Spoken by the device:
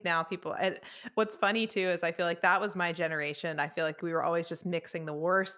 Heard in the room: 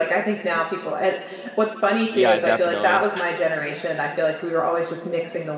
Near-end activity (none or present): present